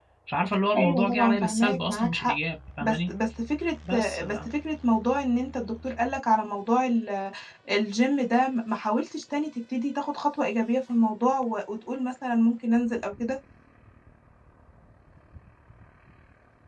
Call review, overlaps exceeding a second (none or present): present